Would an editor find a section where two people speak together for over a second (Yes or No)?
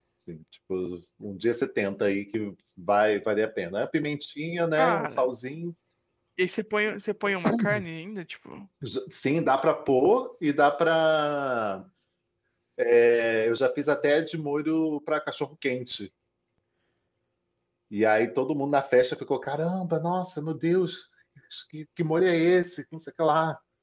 No